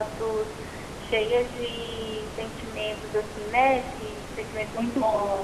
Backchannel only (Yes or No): No